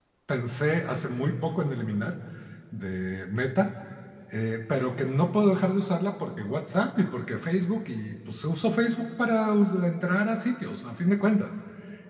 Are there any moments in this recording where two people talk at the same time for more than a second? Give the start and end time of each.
none

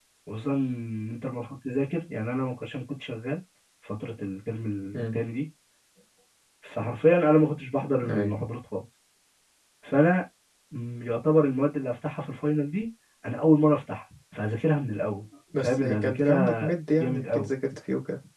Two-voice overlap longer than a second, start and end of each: 15.6-17.5

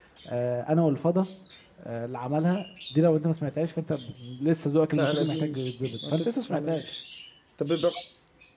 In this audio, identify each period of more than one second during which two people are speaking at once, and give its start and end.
5.0-6.9

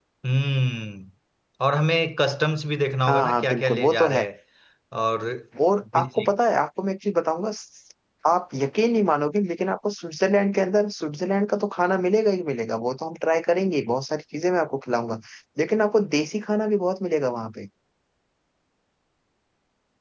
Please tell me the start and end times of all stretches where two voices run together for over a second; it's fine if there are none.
3.0-4.3

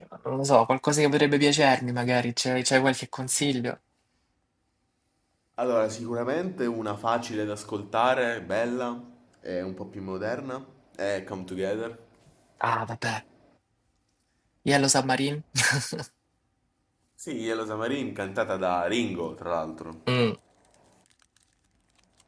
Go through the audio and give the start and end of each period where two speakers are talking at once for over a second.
none

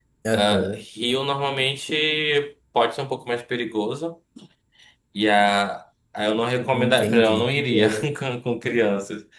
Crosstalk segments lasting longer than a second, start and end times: 6.7-8.1

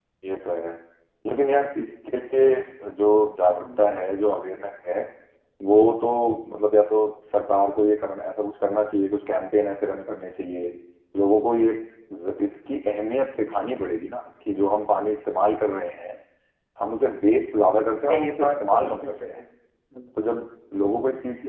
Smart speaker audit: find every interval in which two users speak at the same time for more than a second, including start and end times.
18.1-19.4

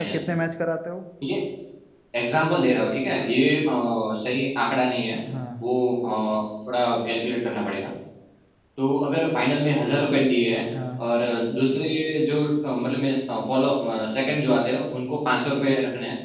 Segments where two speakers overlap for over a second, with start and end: none

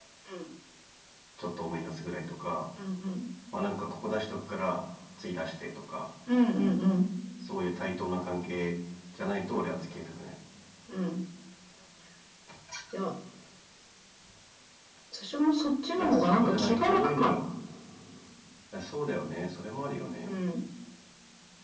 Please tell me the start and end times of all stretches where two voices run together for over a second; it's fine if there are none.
16.0-17.4

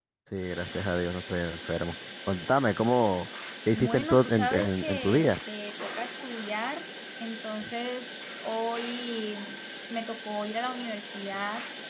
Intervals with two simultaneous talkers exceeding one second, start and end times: 3.7-5.3

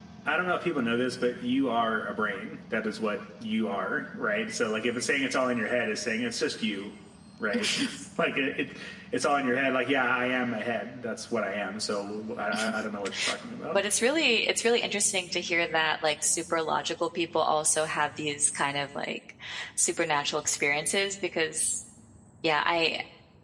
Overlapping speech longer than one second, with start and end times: none

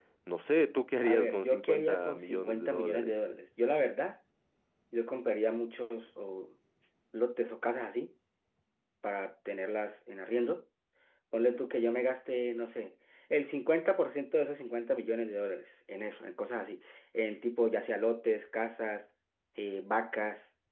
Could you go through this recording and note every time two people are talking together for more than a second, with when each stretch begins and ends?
1.0-3.1

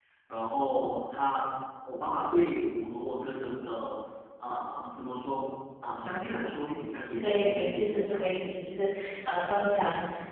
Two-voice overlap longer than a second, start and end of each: 7.2-8.5

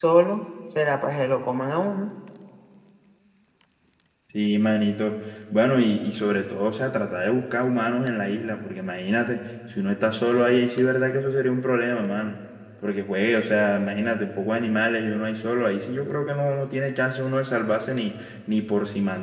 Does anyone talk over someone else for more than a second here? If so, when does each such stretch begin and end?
none

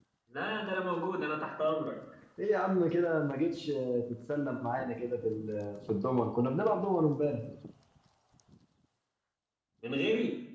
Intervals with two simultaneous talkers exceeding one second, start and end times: none

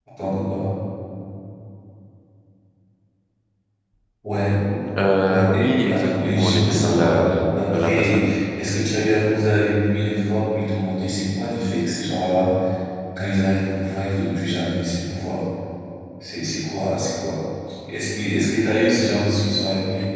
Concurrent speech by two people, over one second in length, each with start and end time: 5.2-8.2

